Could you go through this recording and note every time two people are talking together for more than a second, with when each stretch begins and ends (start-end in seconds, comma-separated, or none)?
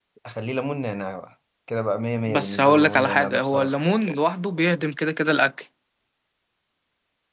2.3-3.7